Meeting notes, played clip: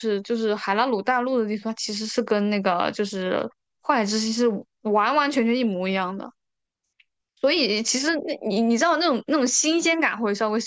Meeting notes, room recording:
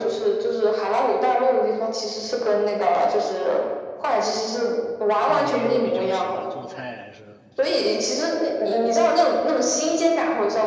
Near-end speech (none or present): present